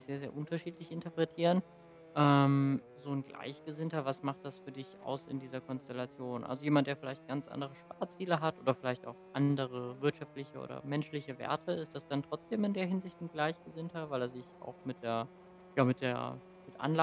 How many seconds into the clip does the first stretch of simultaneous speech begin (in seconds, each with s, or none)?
none